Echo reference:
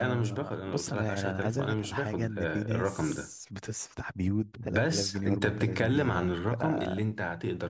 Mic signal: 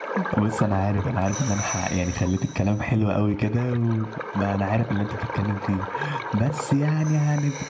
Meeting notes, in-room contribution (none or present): present